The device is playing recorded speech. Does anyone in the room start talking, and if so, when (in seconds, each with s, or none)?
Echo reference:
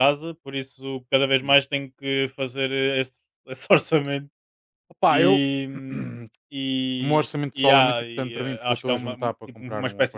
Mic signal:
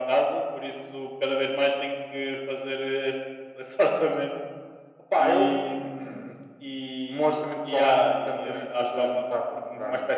none